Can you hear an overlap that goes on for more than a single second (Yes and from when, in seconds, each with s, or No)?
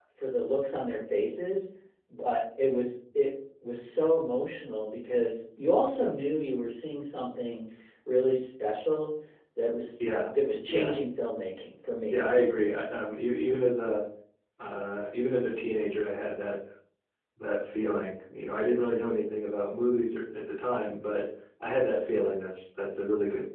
No